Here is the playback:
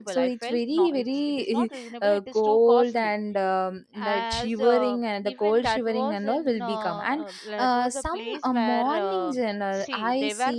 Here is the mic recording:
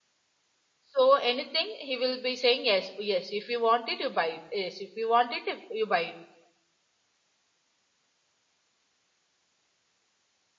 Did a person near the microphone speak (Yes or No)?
Yes